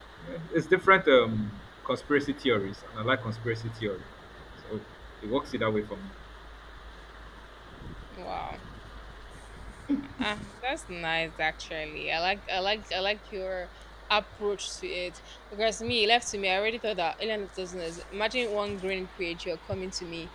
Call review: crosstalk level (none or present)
none